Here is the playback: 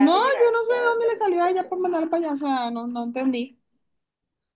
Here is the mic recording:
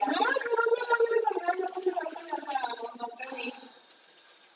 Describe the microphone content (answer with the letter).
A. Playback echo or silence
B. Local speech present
A